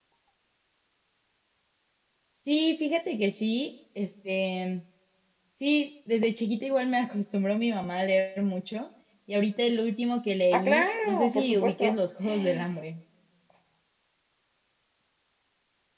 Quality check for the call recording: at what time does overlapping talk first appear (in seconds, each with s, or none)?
10.5 s